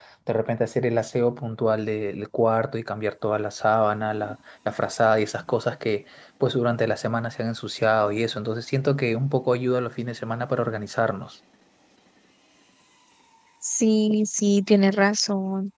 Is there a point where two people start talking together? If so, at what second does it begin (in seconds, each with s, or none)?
none